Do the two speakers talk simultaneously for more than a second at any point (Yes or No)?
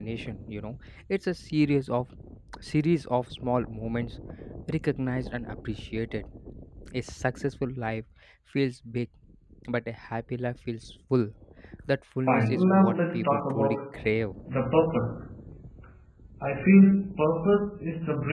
Yes